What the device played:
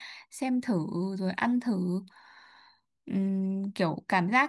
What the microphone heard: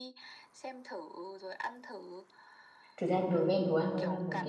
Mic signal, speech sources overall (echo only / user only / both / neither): both